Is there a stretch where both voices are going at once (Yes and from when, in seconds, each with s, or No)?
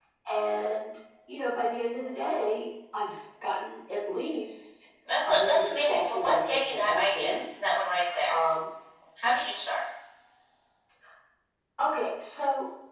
Yes, from 5.2 s